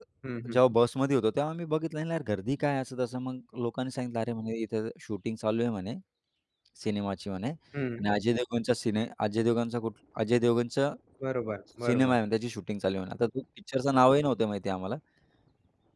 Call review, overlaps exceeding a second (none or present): none